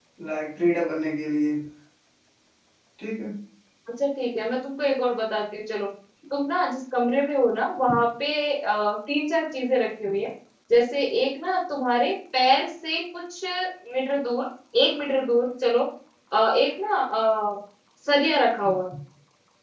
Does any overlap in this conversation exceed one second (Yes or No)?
No